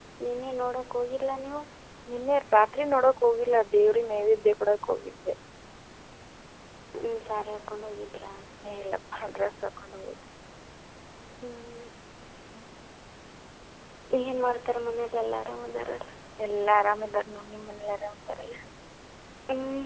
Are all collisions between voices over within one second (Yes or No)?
Yes